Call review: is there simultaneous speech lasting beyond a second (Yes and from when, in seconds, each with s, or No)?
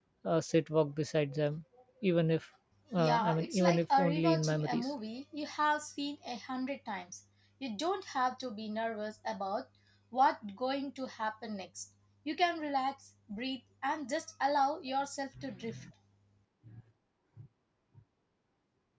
Yes, from 3.0 s